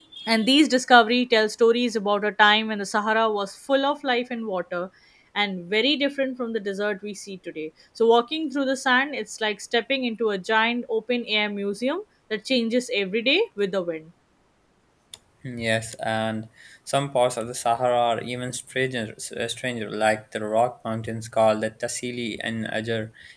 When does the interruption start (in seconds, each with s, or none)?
none